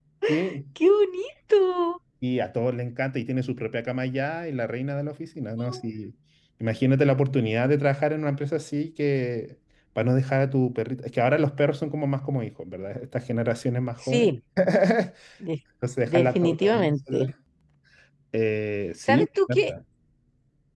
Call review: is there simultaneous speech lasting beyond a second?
Yes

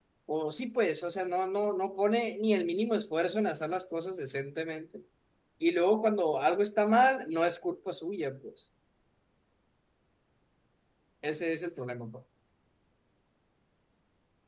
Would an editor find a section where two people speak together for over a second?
No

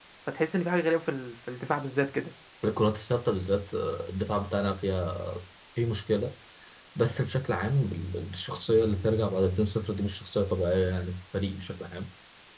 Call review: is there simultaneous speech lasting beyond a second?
No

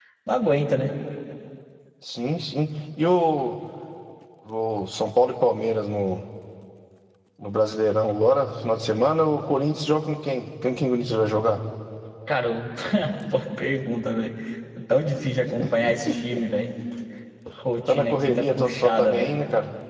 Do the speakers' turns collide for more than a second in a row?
Yes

